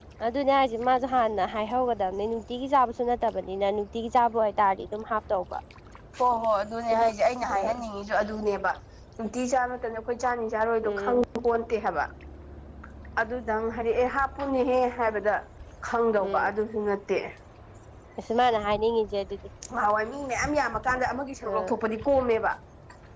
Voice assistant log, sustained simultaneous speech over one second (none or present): none